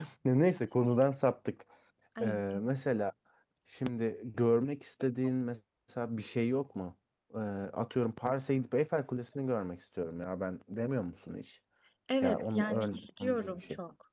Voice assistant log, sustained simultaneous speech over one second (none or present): present